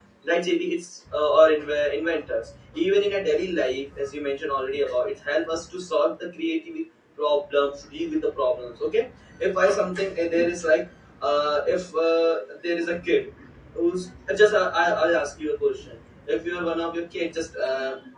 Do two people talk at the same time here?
No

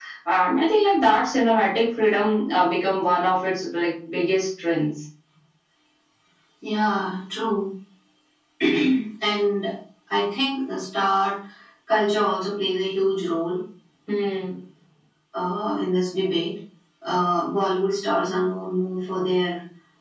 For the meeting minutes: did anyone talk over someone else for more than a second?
No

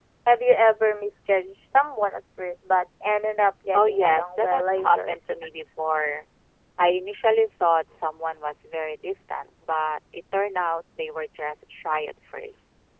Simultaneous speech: Yes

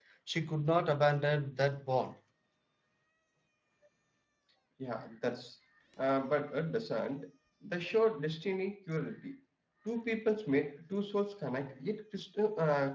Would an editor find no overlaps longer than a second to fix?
Yes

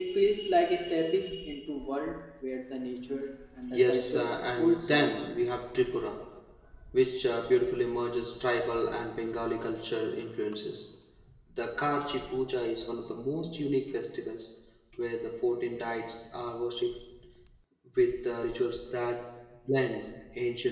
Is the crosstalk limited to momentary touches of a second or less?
No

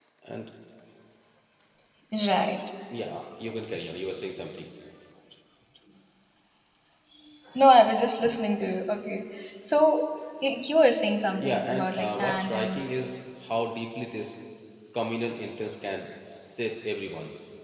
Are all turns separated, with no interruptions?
No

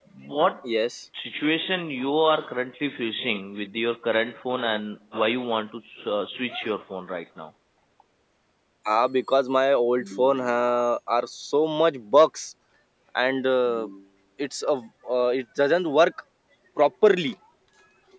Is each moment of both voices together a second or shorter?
Yes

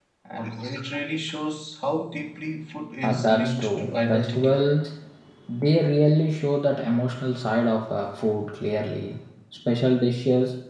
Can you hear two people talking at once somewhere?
Yes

